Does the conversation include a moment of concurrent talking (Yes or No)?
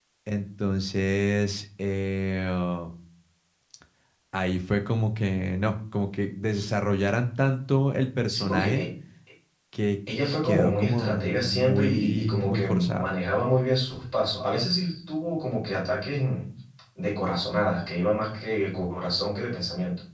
Yes